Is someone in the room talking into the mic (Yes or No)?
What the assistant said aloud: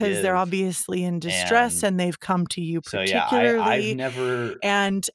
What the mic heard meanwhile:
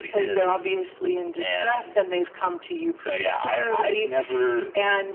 No